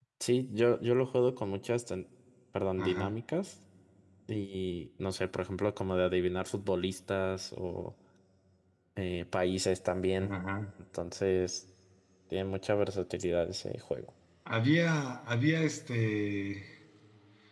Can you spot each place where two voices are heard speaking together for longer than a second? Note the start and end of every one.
none

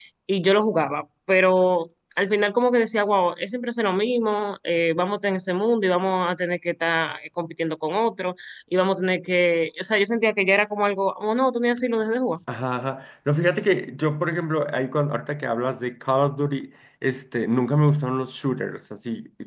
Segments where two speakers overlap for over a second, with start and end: none

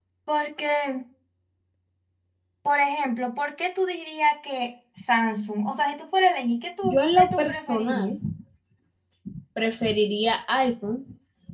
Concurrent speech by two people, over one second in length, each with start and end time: 6.8-8.2

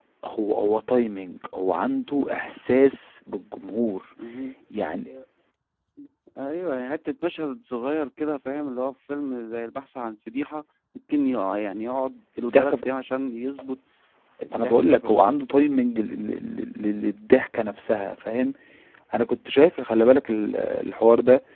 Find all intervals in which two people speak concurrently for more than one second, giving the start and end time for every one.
14.4-15.7

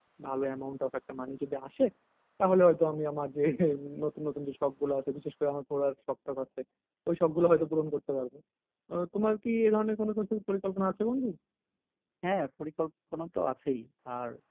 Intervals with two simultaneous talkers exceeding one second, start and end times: none

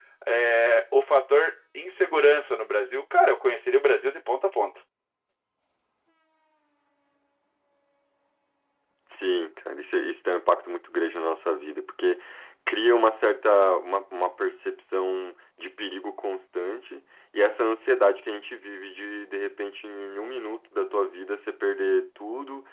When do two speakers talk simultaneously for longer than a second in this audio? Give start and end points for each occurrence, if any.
none

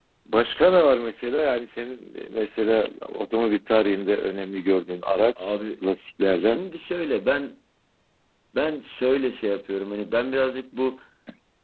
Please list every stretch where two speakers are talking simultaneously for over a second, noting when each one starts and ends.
none

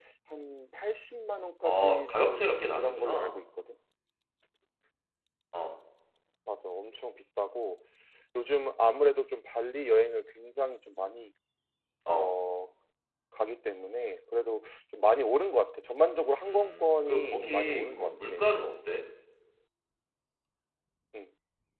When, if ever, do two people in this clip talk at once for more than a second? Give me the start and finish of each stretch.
1.6-3.4, 16.4-18.3

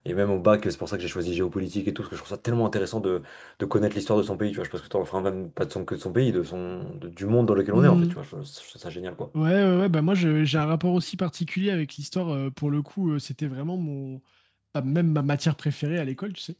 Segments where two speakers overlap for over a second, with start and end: none

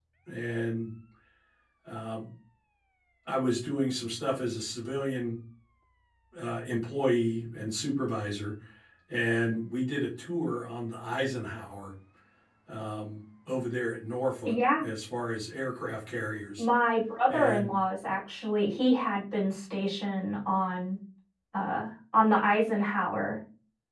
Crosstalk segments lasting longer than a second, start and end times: none

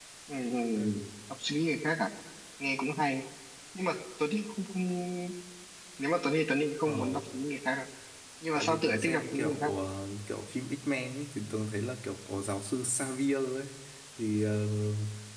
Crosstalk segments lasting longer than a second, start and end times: 8.5-9.8

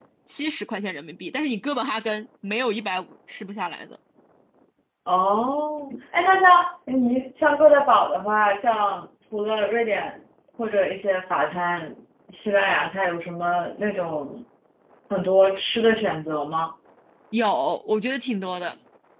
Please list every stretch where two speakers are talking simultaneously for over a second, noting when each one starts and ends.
none

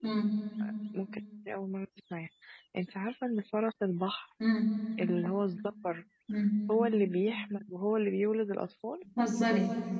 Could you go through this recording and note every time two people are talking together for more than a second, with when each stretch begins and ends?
none

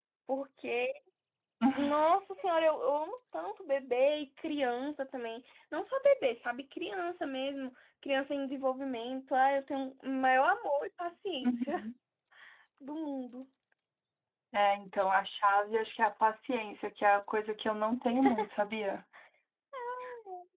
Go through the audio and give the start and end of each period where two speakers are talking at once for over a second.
none

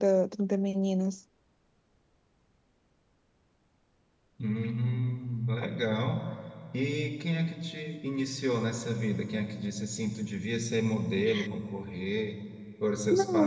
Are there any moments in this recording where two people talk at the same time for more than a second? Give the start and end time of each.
none

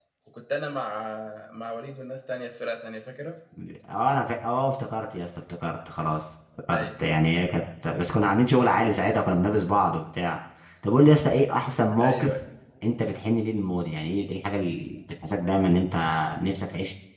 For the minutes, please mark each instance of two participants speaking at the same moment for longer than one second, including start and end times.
none

